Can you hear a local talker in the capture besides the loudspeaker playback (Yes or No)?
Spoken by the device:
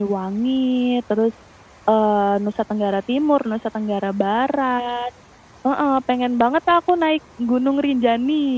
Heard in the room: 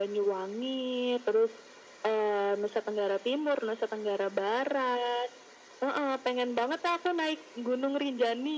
No